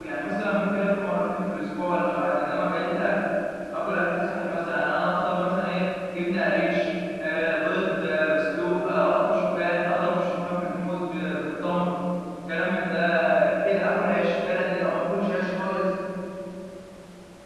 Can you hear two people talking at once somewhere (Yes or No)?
No